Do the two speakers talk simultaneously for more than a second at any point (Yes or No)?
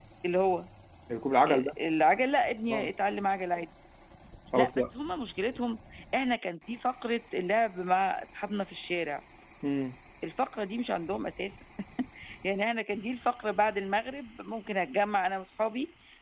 No